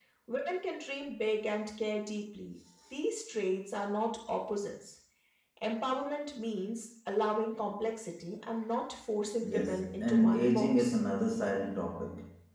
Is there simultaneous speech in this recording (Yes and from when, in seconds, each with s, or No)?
Yes, from 9.4 s